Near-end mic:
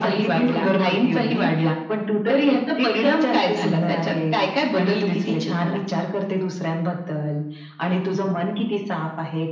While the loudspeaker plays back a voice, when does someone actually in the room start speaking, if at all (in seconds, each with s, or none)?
none